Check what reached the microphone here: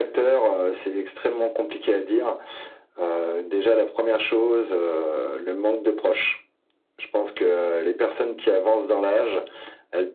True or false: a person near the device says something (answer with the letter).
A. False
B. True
A